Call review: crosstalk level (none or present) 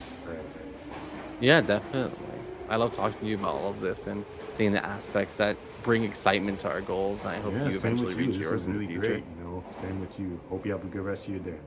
present